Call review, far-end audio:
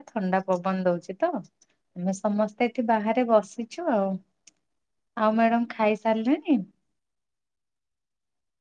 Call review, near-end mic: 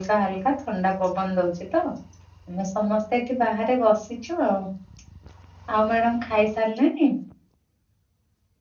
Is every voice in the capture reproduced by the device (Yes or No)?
Yes